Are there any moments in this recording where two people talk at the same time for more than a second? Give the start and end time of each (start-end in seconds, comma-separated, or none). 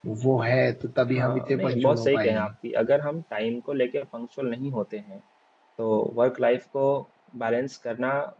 1.1-2.5